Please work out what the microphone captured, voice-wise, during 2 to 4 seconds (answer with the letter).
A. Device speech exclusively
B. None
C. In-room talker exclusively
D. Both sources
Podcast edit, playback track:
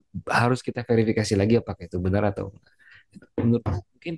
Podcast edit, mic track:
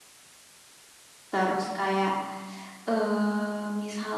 C